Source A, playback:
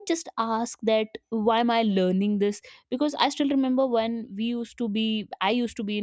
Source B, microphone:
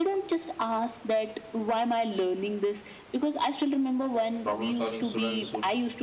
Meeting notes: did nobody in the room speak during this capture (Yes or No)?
No